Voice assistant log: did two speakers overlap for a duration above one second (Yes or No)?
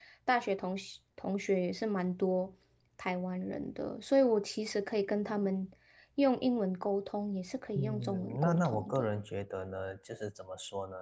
Yes